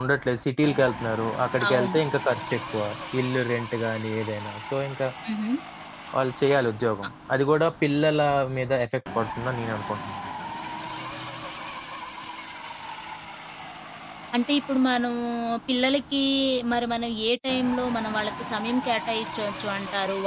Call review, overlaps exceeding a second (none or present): none